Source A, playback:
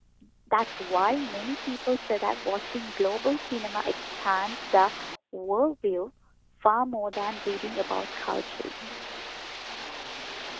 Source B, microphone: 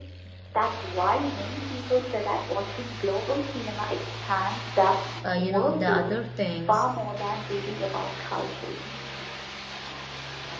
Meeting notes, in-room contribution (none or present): present